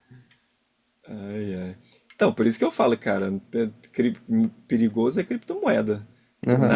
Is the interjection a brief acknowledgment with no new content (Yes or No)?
No